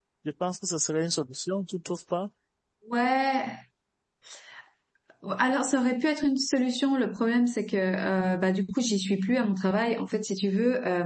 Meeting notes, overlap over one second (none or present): none